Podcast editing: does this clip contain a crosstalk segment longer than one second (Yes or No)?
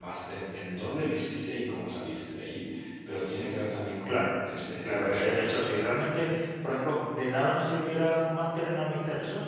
Yes